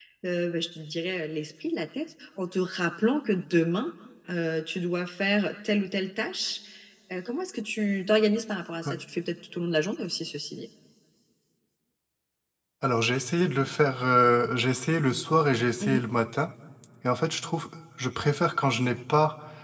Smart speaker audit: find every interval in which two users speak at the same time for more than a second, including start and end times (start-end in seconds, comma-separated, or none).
none